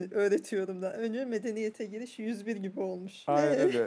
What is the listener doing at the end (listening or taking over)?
taking over